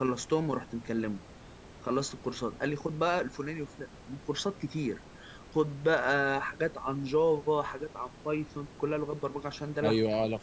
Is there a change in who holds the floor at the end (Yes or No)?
Yes